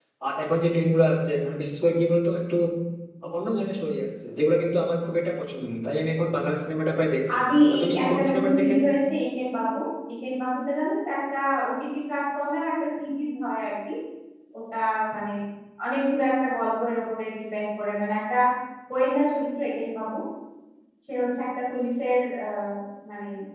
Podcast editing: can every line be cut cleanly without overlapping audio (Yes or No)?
No